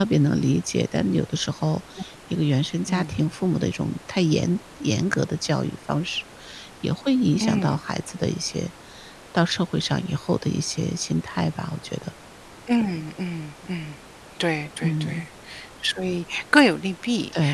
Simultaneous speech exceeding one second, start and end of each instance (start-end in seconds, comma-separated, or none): none